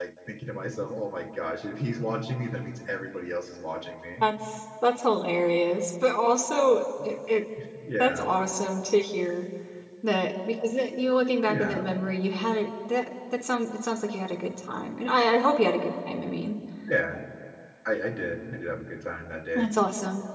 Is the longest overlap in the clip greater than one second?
No

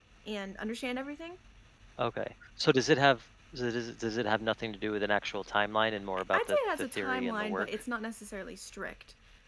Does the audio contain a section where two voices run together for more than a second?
Yes, from 6.3 s

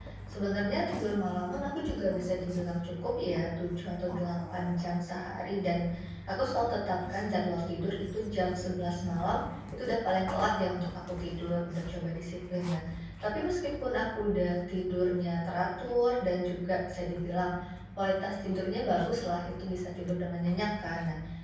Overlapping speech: No

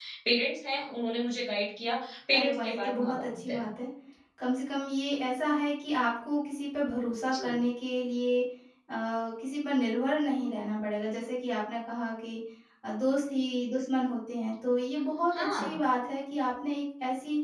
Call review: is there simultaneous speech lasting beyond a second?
Yes, from 2.3 s

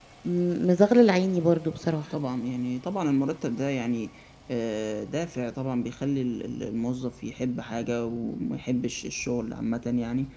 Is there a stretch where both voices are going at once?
No

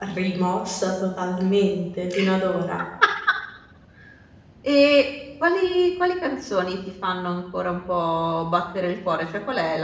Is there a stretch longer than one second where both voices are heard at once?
No

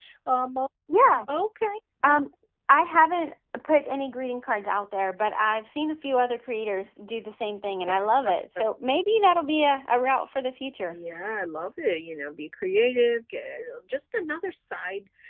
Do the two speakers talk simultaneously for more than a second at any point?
No

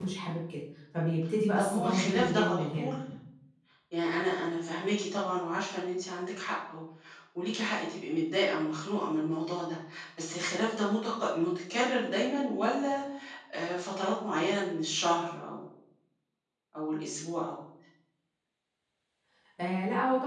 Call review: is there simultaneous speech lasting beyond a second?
Yes, from 1.6 s

